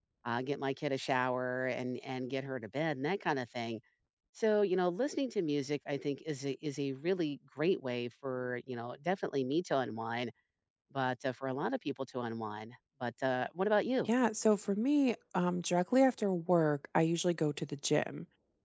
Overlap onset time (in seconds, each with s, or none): none